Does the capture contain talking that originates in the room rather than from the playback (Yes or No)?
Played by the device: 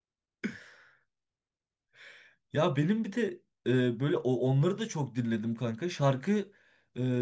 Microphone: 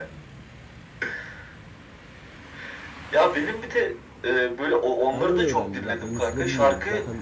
Yes